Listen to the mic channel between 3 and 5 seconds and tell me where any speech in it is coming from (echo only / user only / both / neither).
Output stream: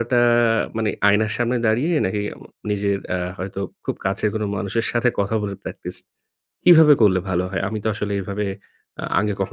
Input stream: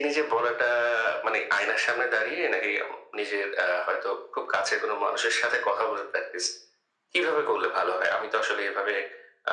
echo only